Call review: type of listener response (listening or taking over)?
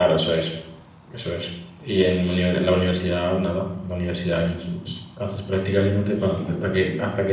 listening